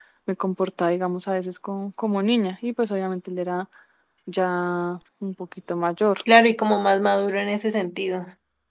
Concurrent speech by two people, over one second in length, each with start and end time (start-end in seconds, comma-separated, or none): none